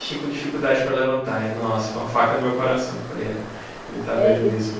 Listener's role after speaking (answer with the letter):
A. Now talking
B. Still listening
A